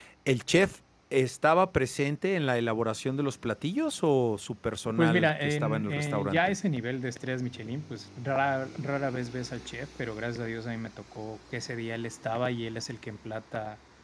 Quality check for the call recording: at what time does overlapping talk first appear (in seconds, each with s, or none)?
4.8 s